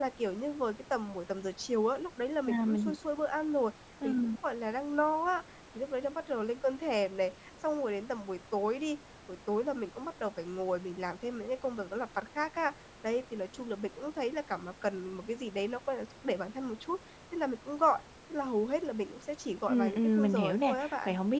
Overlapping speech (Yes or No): Yes